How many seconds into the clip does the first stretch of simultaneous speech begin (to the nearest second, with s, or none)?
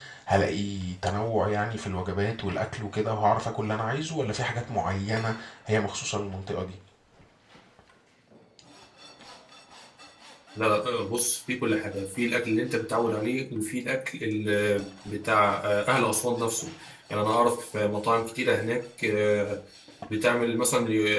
none